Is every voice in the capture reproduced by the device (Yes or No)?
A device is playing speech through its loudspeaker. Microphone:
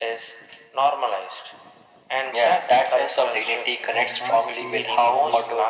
No